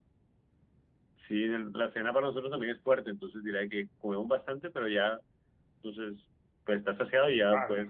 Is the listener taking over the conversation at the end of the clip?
Yes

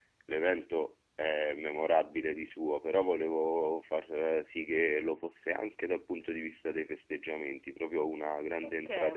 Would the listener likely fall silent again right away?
No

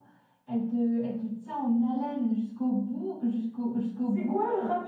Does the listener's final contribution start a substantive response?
Yes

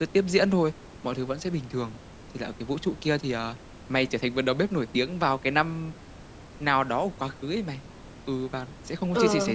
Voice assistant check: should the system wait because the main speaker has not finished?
Yes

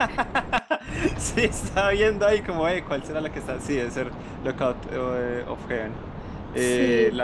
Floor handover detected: No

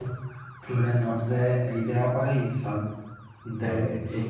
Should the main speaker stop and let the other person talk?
Yes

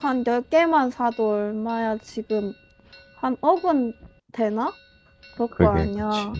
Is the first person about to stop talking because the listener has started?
Yes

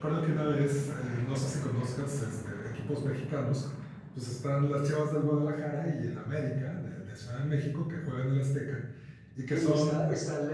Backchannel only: No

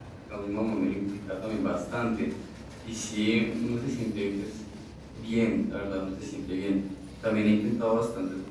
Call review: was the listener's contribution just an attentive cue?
Yes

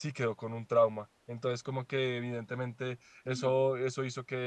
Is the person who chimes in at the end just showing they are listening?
Yes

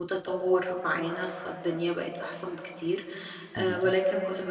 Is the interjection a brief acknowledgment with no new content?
Yes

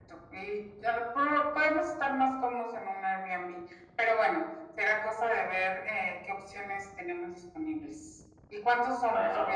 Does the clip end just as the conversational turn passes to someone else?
No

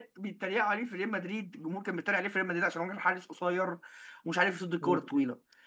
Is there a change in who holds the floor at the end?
No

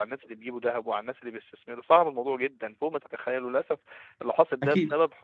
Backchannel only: Yes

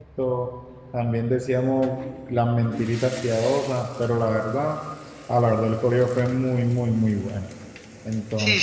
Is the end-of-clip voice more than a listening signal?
Yes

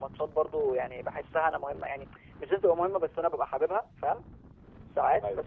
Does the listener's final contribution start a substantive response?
No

